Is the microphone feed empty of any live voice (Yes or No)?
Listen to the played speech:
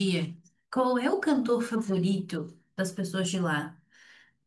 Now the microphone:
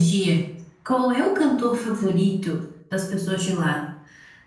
Yes